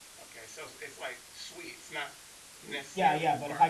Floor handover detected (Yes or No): Yes